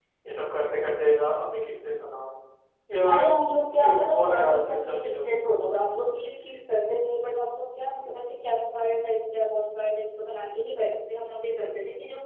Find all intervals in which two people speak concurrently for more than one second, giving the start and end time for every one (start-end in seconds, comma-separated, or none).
3.8-5.4